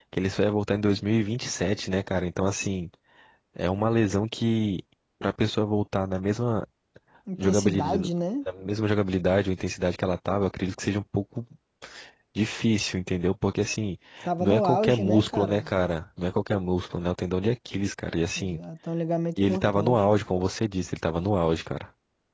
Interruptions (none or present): present